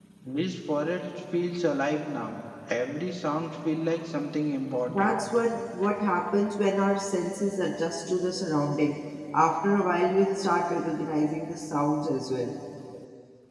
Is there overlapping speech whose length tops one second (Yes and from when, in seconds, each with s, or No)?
No